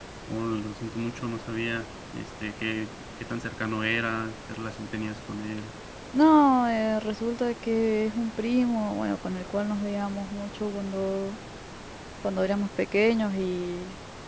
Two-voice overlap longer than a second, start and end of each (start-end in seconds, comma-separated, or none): none